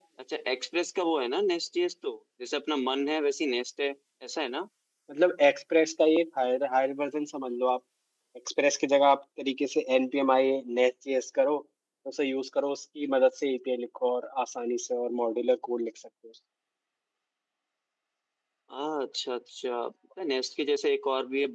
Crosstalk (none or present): none